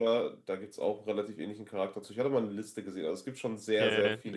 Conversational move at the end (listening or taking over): taking over